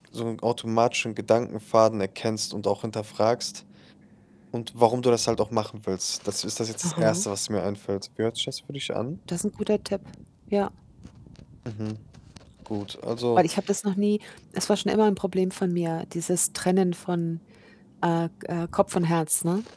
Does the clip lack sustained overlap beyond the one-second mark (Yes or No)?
Yes